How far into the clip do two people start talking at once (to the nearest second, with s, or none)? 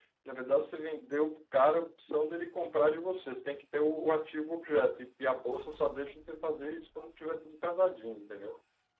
none